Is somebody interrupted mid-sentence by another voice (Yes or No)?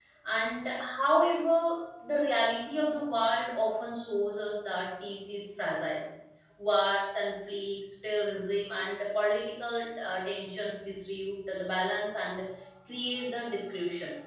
No